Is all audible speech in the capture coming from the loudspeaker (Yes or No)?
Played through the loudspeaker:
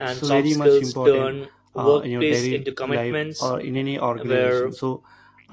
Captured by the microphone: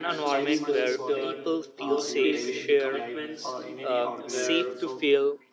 No